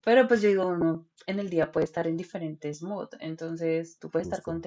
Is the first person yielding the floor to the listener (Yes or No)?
No